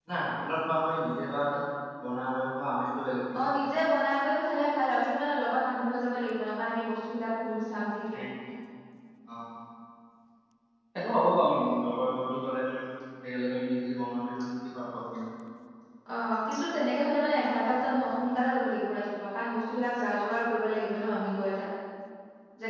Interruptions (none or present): none